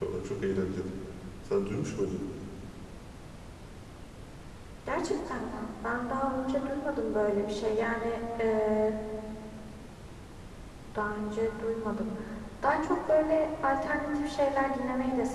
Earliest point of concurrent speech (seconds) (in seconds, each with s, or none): none